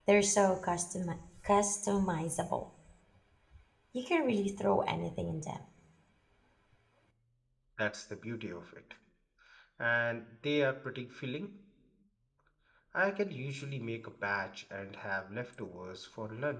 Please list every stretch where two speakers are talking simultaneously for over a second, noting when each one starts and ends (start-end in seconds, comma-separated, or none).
none